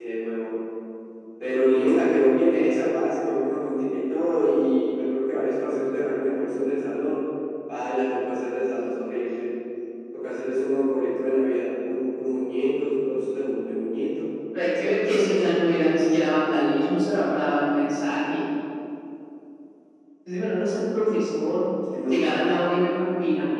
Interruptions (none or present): none